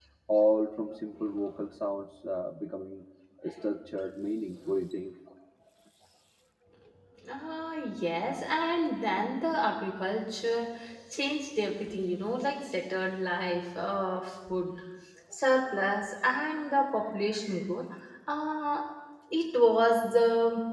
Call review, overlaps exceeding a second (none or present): none